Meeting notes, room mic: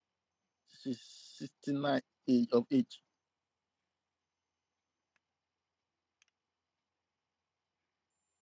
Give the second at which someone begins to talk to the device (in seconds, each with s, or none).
0.8 s